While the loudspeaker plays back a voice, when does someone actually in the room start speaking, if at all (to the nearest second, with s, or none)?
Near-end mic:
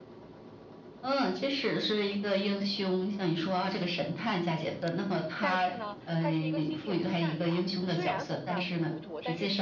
5 s